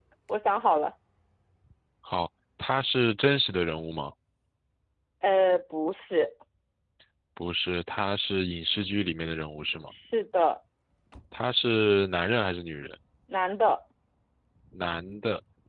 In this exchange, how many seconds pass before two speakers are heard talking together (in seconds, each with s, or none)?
none